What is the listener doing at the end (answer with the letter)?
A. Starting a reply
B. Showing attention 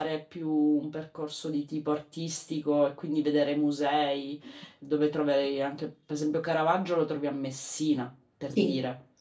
A